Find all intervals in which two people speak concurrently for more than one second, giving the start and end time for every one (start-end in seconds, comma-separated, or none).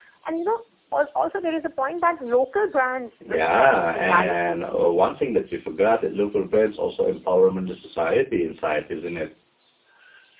3.3-4.6